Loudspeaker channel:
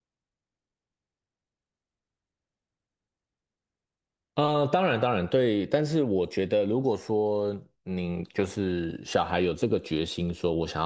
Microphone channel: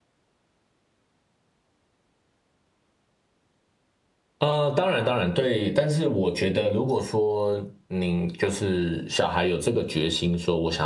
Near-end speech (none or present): none